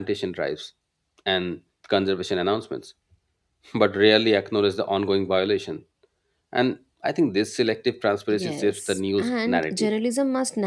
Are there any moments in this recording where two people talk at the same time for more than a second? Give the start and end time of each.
8.3-9.9

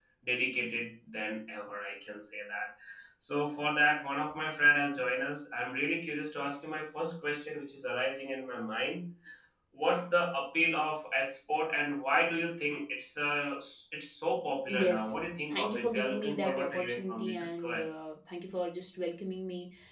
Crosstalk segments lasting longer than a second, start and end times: 15.5-17.8

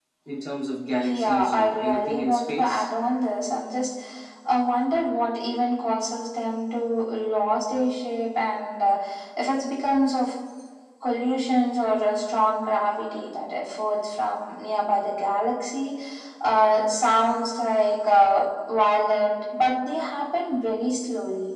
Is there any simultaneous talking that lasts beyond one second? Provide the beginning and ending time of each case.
1.0-2.9

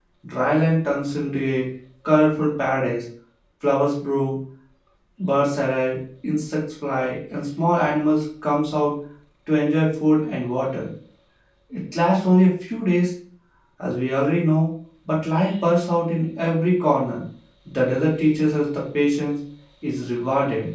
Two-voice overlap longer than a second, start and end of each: none

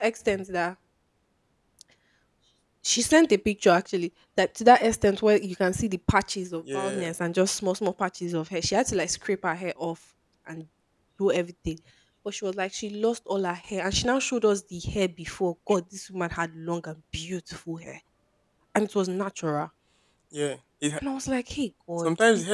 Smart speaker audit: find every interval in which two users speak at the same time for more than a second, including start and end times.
none

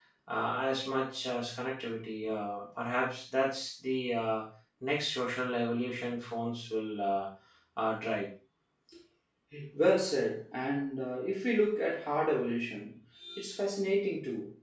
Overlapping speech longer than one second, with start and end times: none

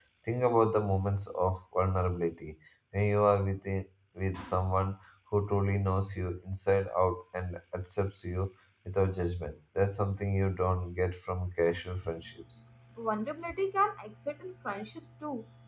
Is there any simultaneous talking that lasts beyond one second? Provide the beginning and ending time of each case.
none

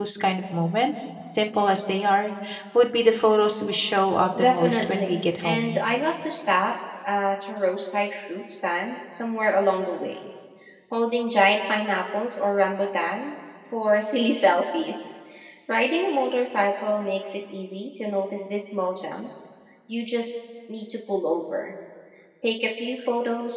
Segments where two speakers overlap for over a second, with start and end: 4.4-5.8

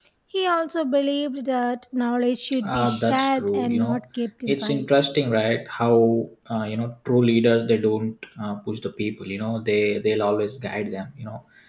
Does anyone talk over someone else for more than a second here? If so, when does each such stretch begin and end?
2.6-4.0

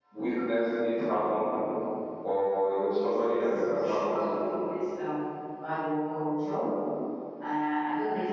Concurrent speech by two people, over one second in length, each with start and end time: 2.9-4.3

